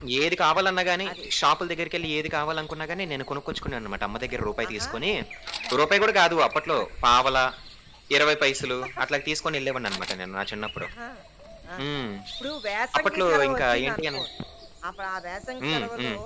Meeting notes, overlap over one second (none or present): present